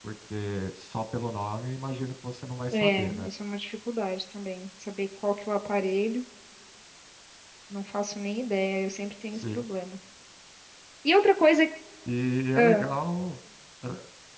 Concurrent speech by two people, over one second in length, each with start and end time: none

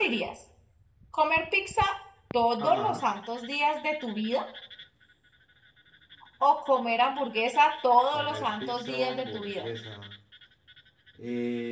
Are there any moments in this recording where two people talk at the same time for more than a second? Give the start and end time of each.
8.1-9.7

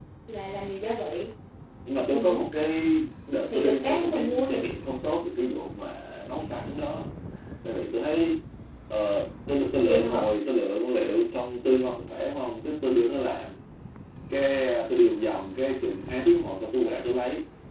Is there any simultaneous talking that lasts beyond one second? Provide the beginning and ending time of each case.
3.5-4.7

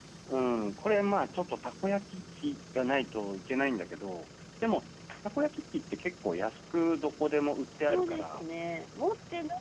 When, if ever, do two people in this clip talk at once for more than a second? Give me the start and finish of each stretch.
none

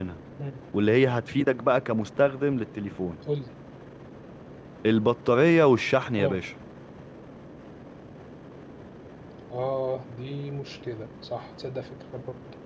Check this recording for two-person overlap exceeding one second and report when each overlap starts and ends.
none

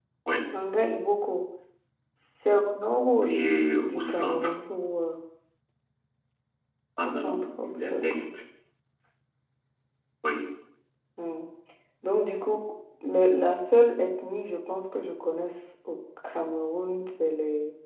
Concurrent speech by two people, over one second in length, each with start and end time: 3.2-4.5, 7.0-8.3

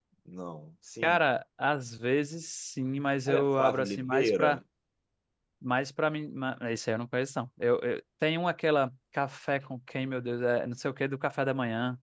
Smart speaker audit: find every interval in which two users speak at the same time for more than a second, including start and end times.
3.3-4.6

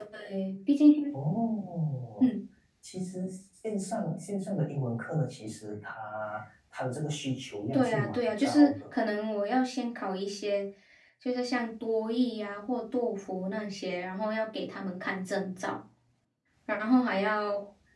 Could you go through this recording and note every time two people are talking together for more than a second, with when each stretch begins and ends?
7.7-9.0

